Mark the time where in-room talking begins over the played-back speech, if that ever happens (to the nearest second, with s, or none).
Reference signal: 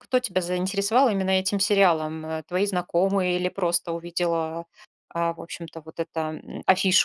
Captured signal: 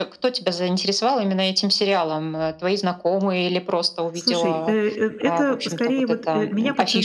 4 s